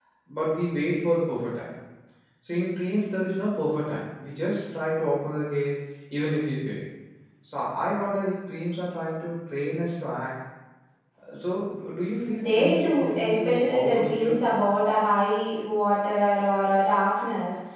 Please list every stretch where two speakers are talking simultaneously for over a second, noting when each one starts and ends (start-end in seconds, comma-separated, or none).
12.2-14.3